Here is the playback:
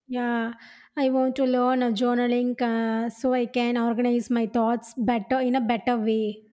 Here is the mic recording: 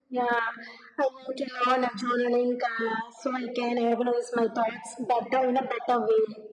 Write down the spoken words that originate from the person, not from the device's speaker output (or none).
none